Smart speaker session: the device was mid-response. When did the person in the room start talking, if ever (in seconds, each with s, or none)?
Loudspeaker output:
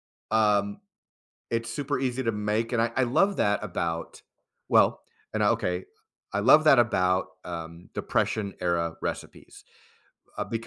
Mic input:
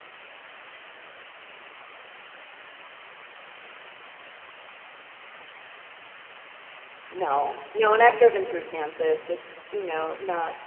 7.1 s